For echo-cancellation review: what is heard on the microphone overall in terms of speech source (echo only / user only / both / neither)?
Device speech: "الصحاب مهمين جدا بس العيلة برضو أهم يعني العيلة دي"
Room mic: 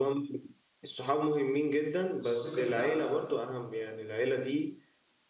both